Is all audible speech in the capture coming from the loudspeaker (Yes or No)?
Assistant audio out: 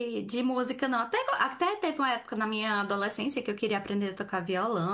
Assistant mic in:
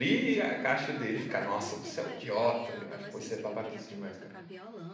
No